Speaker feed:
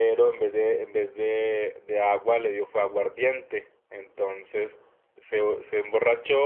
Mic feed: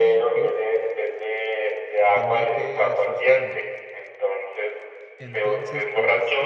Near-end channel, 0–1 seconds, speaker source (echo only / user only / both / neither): both